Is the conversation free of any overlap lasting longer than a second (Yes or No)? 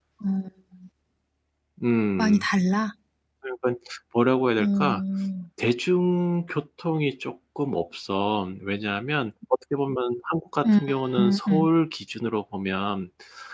Yes